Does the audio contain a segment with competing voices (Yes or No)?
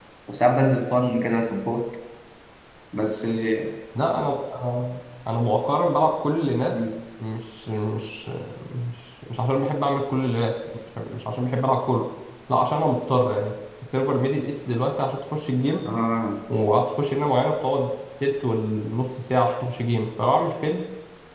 No